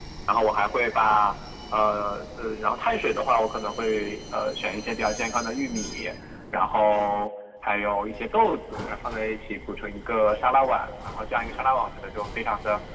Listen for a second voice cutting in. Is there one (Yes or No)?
No